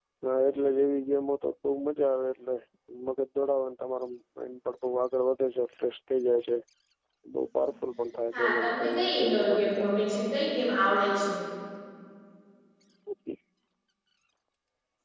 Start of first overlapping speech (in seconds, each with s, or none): 8.3 s